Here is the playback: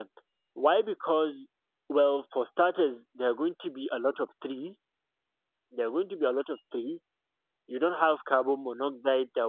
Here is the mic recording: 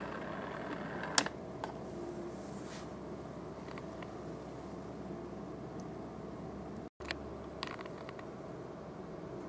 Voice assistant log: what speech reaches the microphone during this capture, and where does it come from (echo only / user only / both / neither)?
neither